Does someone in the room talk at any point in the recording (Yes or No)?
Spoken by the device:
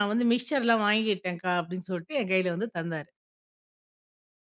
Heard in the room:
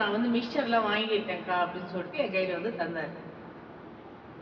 No